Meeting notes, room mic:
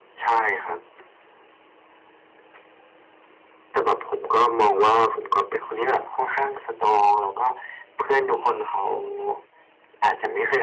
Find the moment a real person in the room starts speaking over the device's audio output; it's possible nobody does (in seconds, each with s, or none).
none